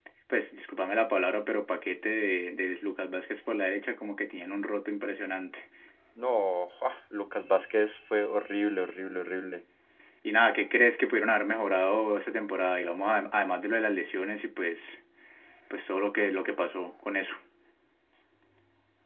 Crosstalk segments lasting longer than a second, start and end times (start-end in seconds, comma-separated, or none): none